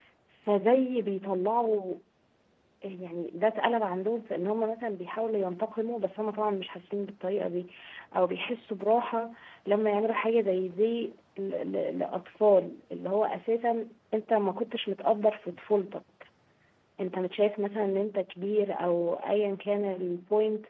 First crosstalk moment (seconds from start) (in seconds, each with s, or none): none